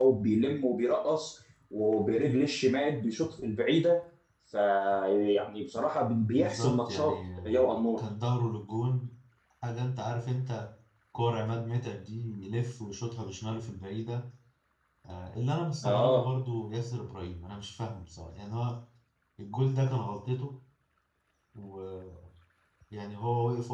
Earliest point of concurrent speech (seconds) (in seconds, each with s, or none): 6.4 s